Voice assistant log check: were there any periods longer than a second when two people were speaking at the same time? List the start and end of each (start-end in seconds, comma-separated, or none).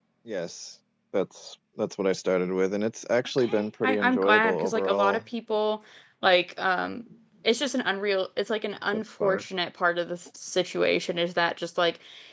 3.4-5.2